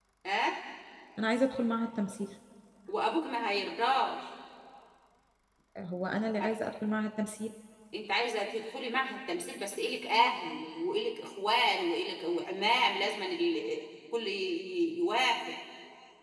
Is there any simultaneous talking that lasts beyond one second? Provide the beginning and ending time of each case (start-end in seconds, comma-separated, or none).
none